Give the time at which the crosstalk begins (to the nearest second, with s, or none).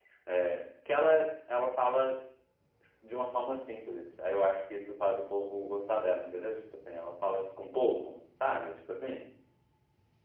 none